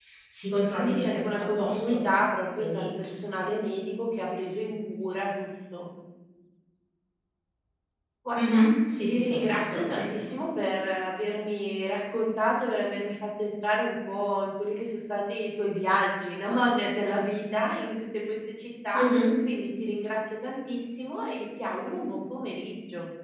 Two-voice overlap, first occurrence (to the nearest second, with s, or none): 1 s